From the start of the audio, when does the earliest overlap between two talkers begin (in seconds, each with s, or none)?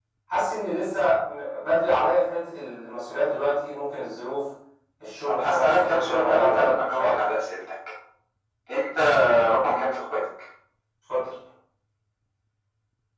5.3 s